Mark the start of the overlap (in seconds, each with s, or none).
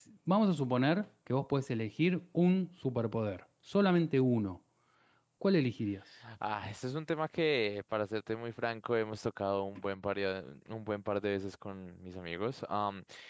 none